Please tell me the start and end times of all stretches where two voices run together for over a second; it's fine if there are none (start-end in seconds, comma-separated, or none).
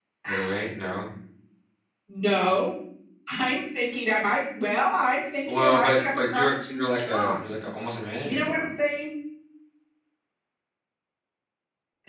5.5-7.4